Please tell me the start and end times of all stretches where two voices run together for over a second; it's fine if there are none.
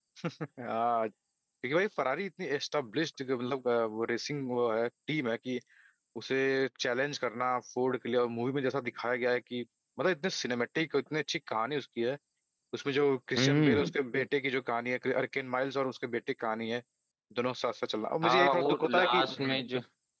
18.2-19.6

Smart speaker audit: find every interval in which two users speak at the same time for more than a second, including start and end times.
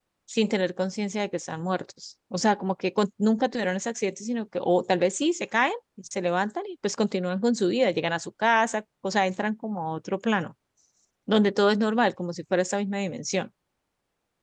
none

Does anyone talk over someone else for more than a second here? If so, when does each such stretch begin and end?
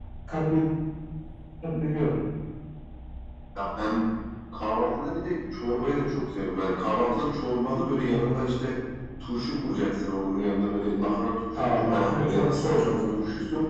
11.5-13.2

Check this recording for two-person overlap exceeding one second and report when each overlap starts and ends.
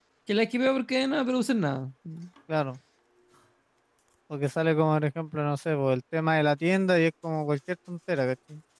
none

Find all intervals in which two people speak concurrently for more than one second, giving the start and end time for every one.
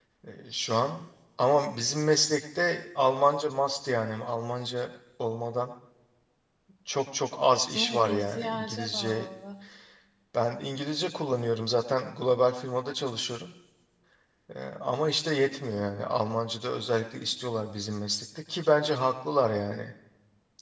7.8-9.3

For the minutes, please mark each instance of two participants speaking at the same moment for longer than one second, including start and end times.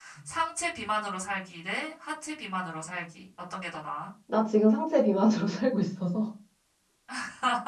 none

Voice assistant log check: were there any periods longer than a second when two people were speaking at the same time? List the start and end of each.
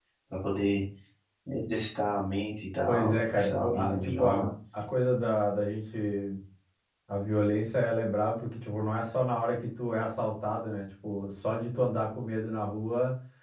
2.9-4.5

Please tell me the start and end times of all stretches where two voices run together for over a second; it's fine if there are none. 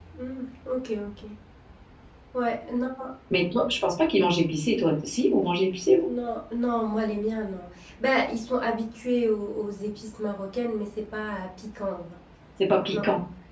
none

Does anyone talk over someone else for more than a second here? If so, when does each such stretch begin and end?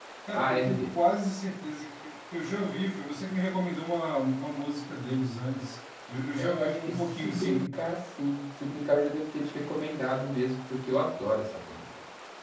6.4-7.6

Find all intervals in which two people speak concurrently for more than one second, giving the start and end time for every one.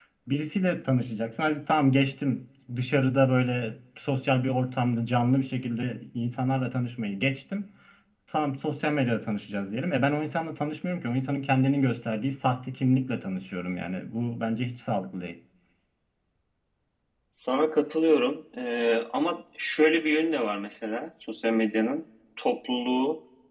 none

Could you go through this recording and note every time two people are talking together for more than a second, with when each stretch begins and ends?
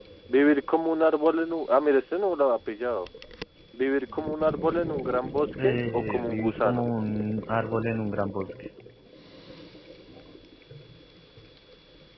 5.6-6.8

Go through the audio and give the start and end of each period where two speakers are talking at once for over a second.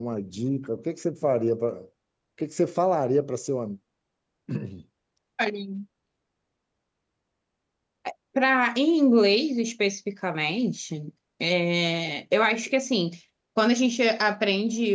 none

